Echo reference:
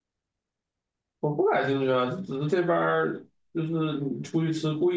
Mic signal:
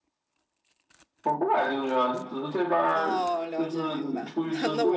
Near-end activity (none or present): present